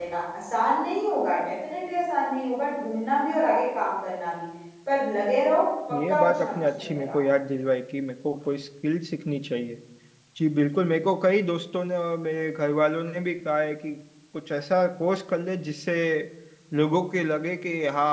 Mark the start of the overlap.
5.9 s

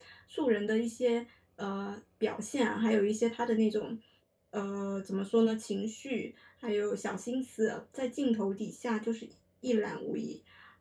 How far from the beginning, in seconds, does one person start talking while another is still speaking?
none

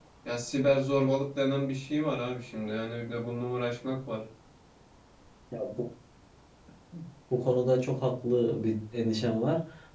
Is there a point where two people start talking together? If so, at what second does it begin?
none

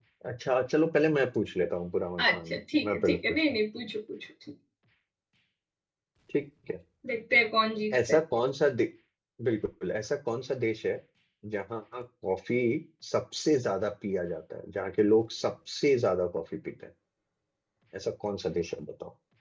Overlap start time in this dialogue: 2.2 s

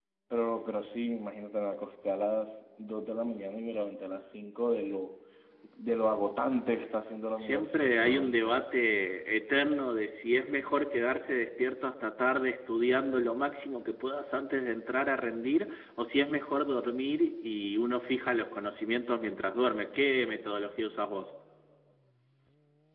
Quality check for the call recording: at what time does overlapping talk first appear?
7.3 s

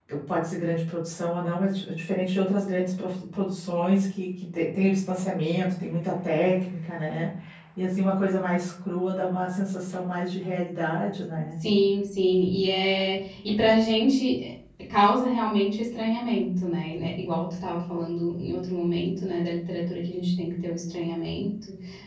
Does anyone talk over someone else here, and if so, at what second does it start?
none

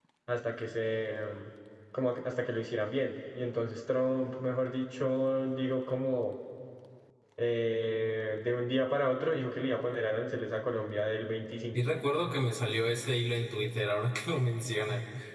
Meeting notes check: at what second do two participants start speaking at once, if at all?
none

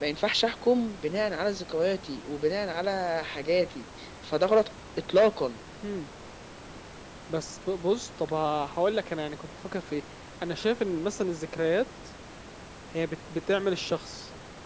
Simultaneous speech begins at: none

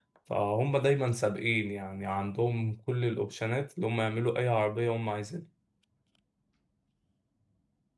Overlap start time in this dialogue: none

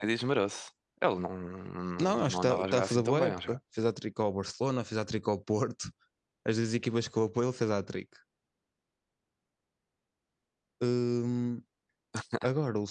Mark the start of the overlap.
2.0 s

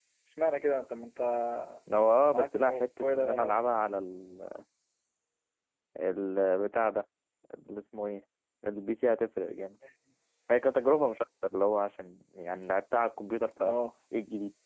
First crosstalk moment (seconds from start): 2.3 s

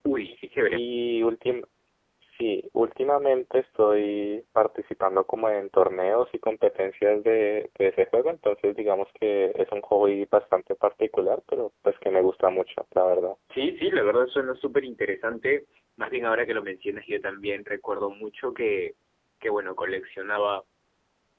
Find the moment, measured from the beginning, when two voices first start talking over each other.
none

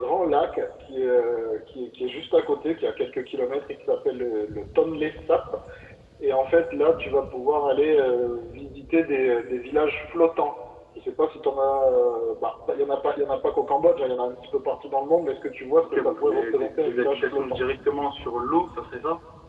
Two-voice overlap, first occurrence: 15.8 s

